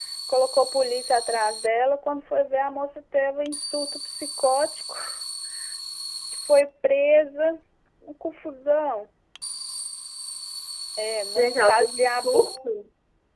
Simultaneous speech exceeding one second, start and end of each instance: 11.3-12.7

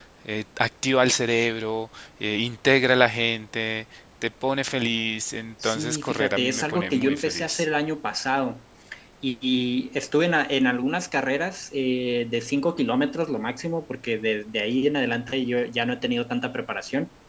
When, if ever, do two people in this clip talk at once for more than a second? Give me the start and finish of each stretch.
5.6-7.6

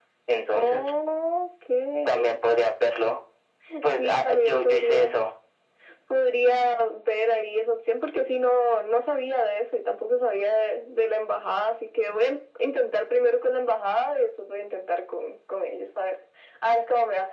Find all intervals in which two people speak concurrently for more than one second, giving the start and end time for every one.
3.9-5.1

